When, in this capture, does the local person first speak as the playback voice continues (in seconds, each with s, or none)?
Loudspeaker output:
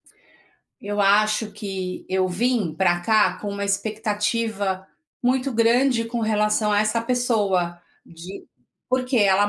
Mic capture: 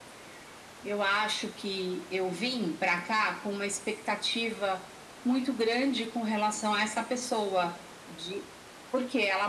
none